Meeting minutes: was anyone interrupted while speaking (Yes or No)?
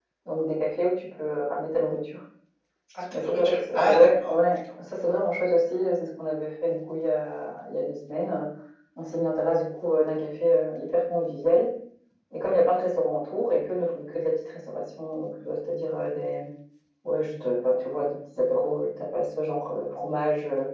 Yes